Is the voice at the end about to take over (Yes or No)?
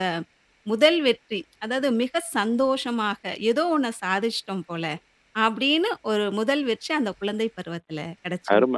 Yes